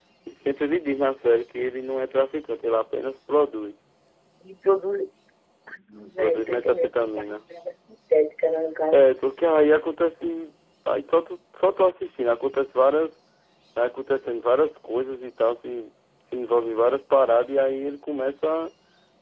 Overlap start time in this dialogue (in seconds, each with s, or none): 6.2 s